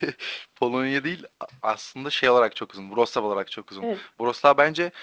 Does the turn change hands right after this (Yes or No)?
No